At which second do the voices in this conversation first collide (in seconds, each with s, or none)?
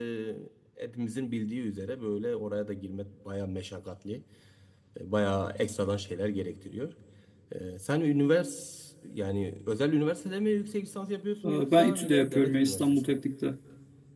11.4 s